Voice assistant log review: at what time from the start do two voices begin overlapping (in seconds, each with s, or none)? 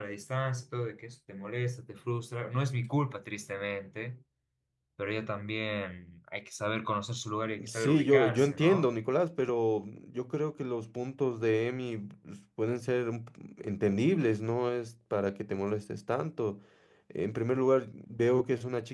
7.6 s